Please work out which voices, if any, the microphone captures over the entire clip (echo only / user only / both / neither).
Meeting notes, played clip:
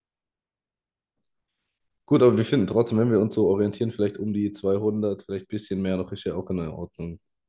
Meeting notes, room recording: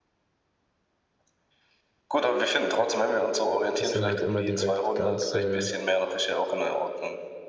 both